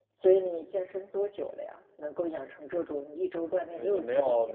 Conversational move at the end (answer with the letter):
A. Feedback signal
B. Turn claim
B